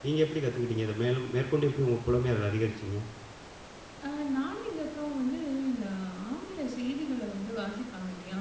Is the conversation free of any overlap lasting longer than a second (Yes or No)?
Yes